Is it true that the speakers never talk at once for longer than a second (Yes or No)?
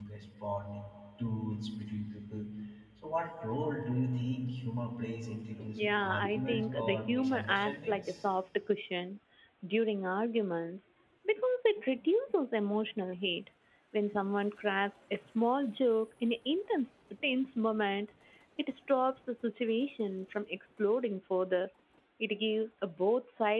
No